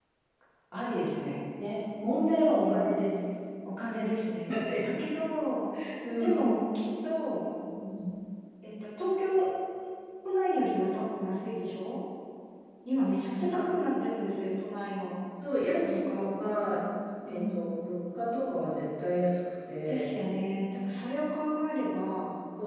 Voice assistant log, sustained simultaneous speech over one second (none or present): none